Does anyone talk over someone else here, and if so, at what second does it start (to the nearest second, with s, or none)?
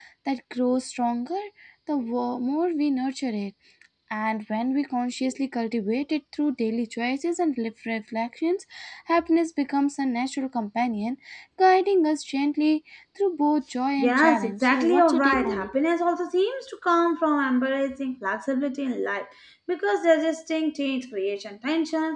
14 s